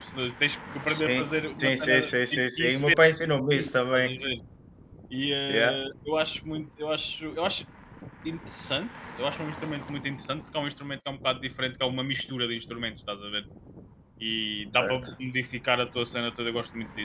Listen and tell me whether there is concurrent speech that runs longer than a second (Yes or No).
Yes